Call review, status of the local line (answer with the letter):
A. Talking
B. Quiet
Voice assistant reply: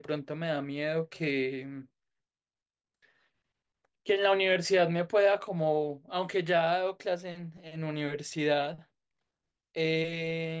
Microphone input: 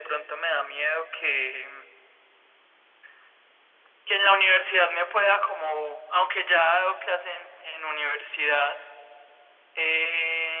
B